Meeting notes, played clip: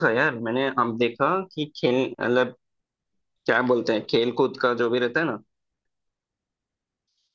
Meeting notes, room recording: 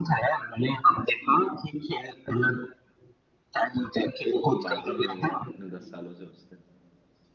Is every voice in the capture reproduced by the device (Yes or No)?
No